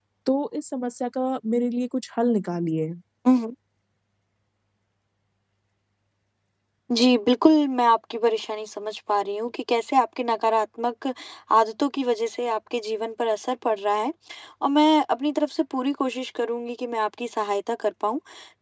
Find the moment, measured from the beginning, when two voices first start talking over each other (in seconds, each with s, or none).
none